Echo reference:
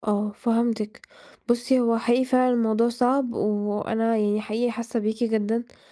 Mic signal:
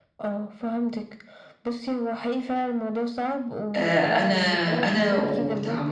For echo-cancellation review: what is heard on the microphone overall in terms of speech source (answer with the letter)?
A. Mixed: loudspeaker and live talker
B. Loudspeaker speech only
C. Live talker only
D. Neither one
A